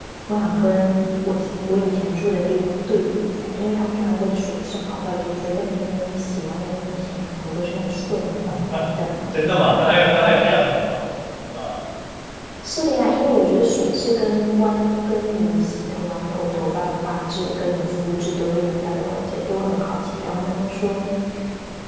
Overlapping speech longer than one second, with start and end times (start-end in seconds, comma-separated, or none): none